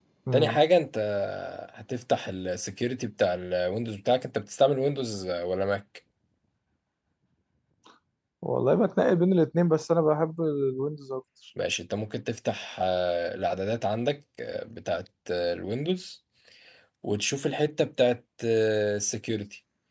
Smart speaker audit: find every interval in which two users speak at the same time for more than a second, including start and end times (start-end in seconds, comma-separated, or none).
none